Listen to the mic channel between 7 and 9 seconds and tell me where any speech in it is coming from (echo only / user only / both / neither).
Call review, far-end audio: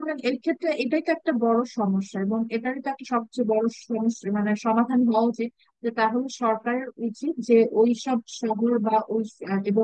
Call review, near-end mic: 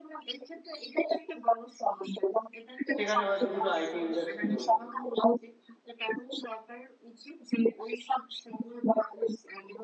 echo only